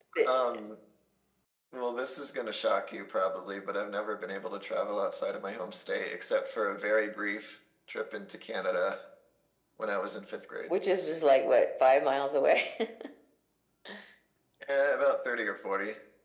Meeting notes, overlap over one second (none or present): none